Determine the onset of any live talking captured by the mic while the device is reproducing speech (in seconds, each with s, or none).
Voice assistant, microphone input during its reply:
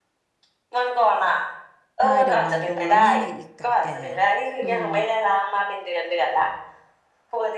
2.0 s